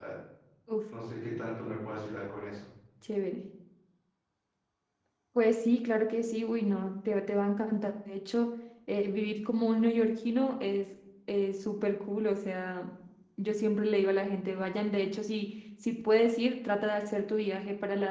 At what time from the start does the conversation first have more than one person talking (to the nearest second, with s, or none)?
none